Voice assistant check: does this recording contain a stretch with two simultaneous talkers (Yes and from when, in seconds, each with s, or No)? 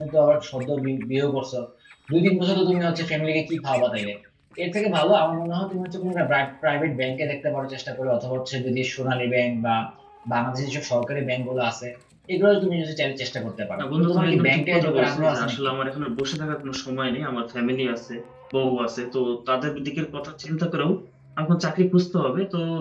Yes, from 13.8 s